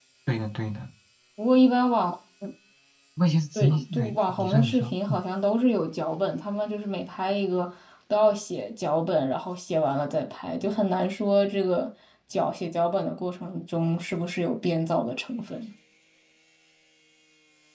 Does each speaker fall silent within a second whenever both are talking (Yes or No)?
No